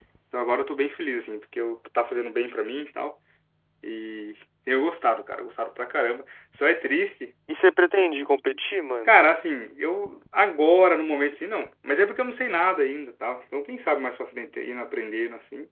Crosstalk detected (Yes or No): No